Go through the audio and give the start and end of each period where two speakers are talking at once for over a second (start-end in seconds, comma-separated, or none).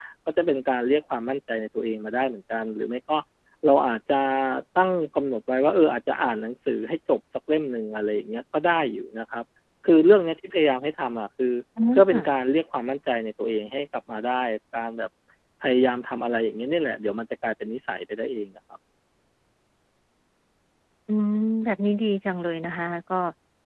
none